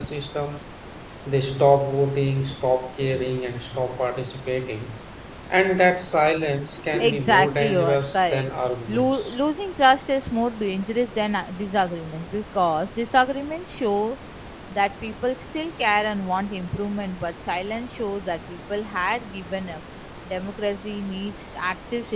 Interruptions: present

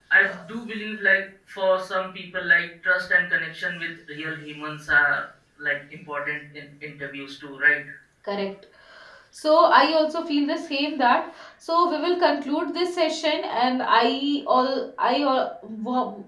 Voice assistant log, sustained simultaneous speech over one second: none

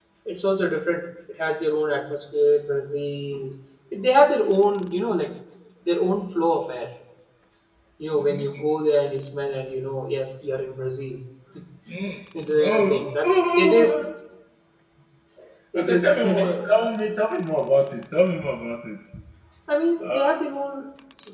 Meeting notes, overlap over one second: present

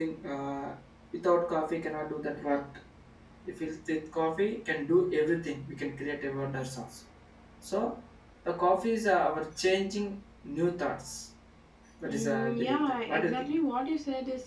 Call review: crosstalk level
present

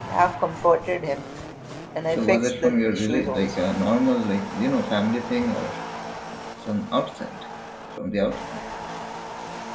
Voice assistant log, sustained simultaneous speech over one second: present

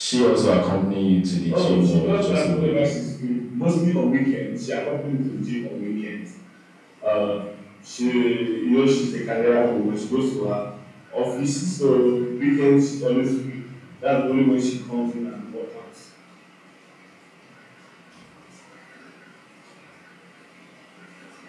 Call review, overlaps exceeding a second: present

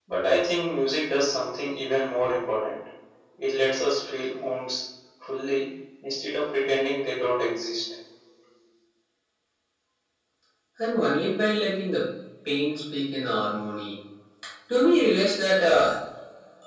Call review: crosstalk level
none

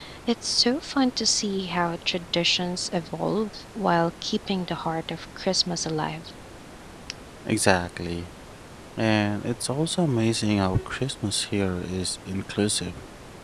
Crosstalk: none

